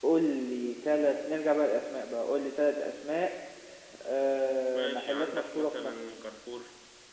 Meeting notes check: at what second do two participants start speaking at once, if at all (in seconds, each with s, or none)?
4.7 s